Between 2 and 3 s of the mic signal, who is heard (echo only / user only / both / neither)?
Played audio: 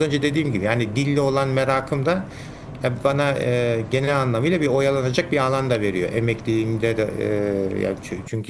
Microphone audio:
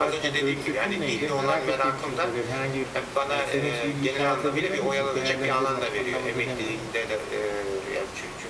both